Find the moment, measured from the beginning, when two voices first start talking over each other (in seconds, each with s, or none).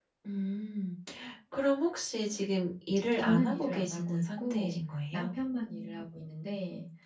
3.2 s